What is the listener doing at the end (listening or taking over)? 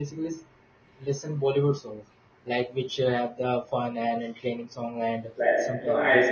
taking over